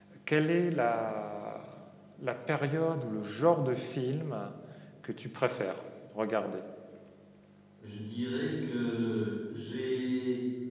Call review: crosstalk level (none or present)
none